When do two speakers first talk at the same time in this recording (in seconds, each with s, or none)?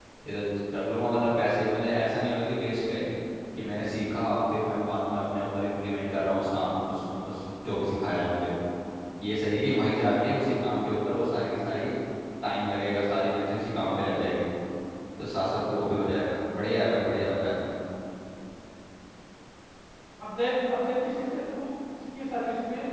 none